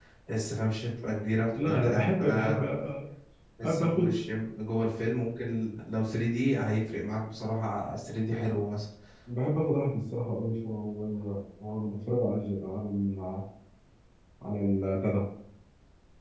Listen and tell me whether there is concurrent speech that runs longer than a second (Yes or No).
Yes